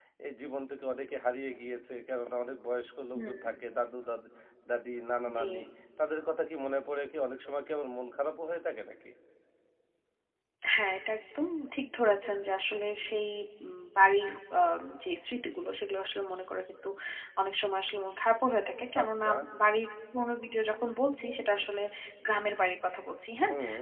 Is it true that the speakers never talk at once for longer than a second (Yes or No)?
Yes